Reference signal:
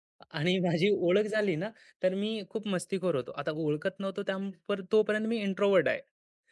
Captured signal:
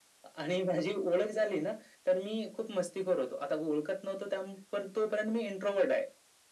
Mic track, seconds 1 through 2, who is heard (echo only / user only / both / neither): echo only